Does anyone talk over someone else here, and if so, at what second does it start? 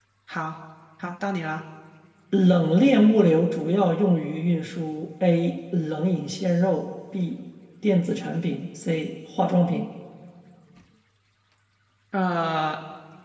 none

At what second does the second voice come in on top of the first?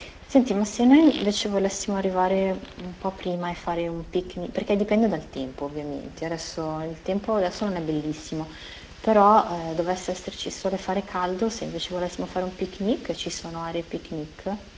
none

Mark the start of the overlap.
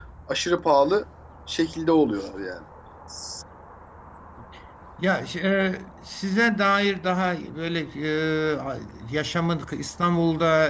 none

